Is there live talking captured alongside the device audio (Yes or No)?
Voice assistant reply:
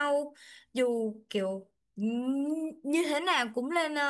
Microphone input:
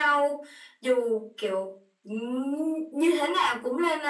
No